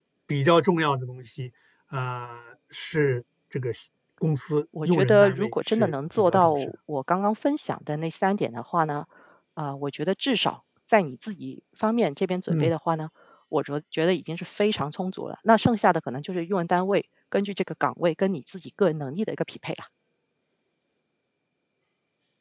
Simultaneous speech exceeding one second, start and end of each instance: 4.8-6.7

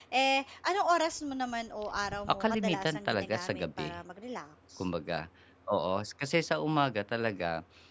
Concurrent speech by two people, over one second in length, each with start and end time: 2.3-4.0

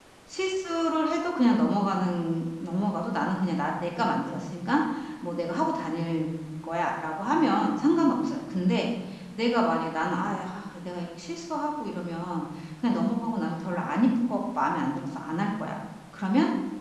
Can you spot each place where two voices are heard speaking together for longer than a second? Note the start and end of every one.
none

